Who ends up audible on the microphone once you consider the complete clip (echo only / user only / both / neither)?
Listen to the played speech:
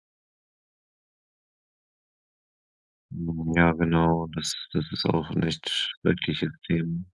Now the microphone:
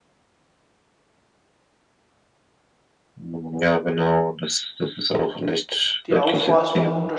both